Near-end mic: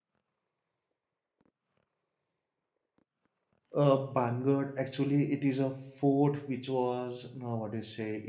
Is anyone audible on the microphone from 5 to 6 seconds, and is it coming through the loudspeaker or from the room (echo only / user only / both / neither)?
user only